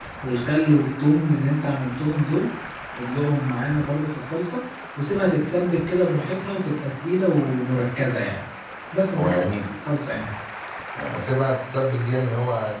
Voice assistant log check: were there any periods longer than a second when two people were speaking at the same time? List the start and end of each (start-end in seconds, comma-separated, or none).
none